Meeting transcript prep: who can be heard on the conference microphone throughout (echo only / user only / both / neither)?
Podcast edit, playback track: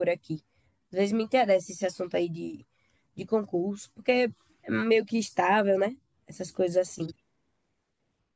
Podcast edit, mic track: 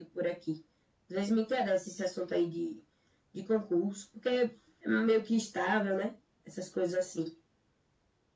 echo only